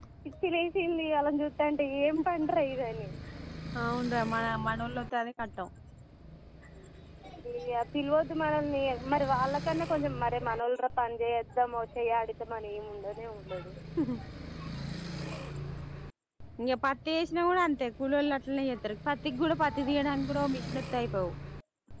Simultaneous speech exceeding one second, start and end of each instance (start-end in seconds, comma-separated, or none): none